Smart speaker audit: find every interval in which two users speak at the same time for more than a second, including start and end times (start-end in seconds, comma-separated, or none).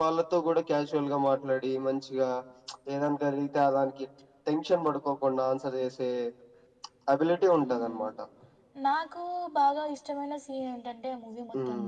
none